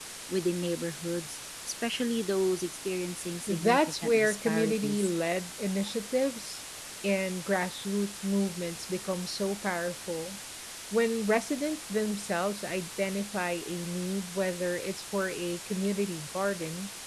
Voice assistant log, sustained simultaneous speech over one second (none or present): present